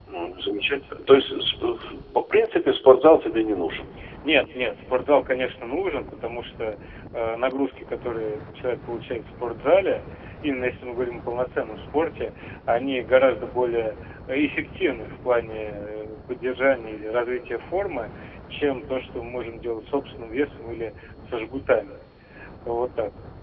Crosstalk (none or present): none